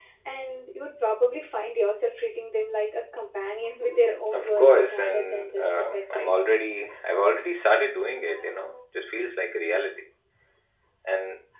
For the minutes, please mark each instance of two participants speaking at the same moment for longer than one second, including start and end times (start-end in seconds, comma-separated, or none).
4.3-6.3